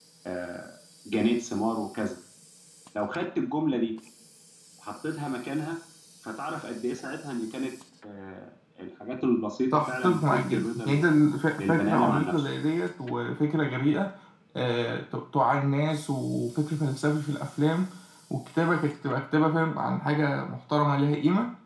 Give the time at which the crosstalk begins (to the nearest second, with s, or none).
10 s